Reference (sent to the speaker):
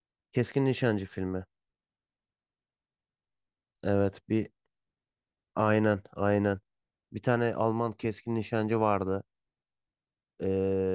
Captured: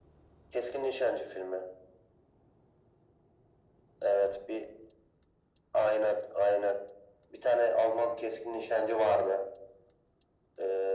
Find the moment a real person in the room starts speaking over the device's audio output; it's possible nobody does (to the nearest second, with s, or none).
none